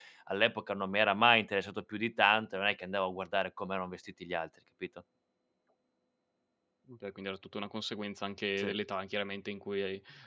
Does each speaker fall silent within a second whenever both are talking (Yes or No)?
Yes